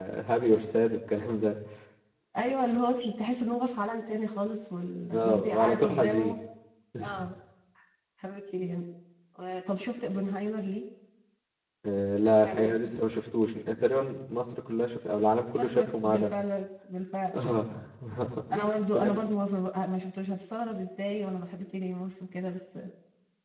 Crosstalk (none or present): present